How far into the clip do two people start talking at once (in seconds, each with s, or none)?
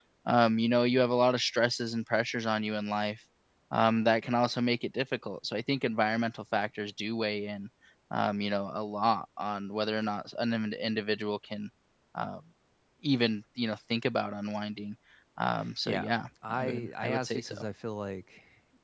15.8 s